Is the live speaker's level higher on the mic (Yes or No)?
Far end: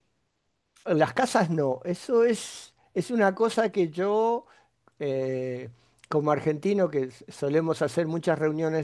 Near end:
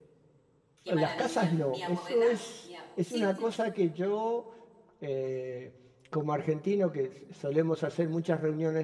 No